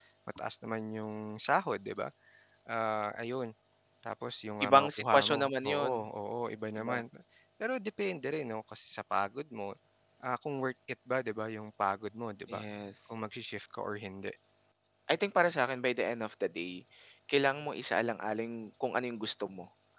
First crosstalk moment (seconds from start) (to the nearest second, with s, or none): 5 s